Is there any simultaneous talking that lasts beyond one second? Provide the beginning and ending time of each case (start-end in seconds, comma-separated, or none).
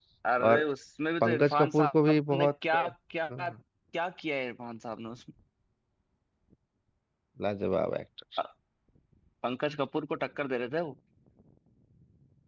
1.2-2.8